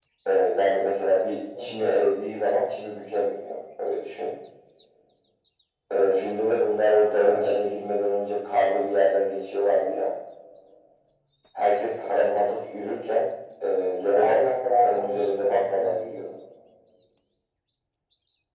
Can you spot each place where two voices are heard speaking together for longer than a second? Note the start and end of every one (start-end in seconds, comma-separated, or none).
14.1-16.2